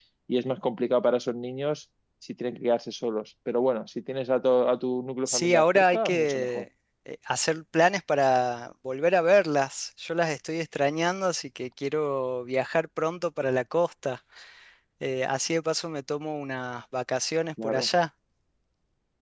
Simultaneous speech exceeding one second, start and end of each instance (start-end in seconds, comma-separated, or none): 5.3-6.7